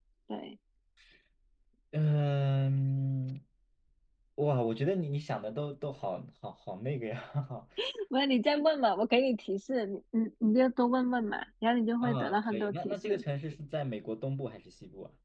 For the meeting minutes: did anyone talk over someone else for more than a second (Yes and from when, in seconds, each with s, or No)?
Yes, from 12.0 s